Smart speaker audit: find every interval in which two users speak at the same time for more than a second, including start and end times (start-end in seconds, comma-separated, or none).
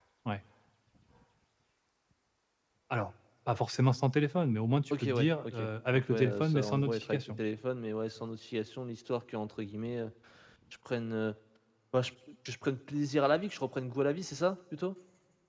4.9-7.4